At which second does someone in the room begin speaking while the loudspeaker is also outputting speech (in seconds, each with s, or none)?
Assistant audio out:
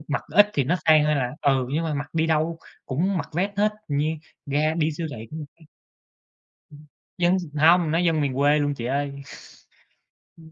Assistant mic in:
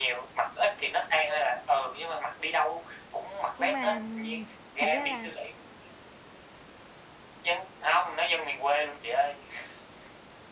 3.6 s